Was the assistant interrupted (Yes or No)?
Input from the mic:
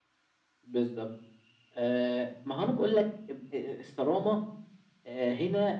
No